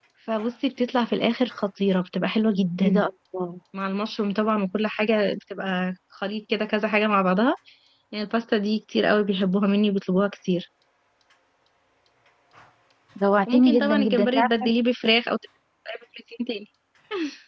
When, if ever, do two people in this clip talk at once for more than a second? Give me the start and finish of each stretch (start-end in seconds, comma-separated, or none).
13.5-14.8